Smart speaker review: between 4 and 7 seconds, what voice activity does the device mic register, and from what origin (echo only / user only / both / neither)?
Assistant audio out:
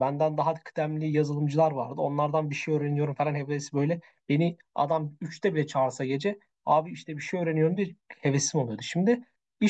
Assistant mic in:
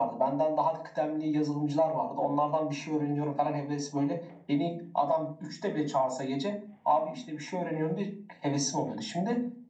echo only